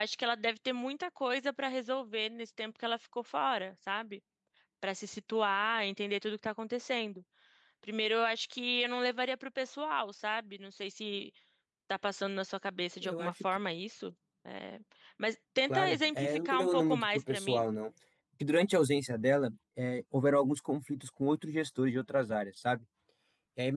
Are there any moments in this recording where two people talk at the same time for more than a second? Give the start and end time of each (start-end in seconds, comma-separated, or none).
15.7-17.6